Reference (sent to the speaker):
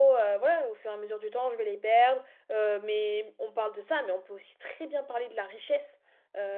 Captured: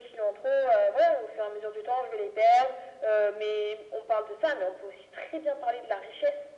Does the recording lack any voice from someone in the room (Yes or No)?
Yes